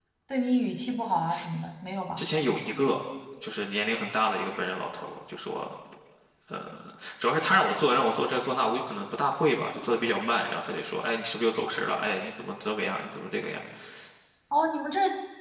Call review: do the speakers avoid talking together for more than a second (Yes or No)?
Yes